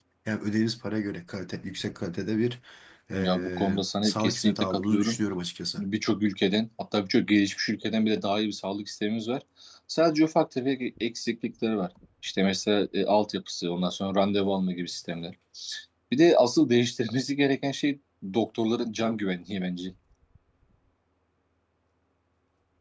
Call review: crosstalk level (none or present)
present